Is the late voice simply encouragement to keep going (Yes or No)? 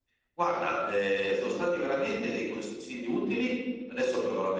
Yes